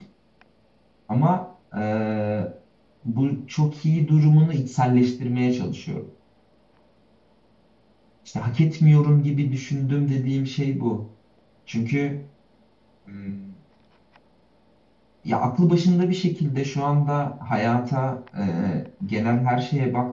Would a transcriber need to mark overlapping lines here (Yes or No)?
No